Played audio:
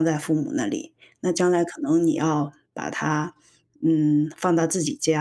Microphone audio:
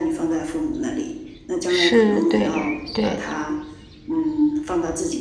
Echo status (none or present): present